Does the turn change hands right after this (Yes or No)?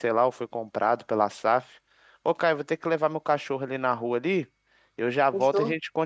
No